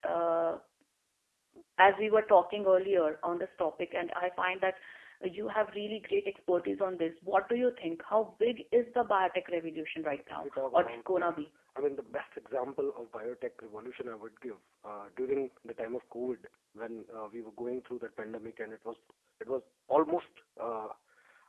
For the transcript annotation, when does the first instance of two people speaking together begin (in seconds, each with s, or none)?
10.0 s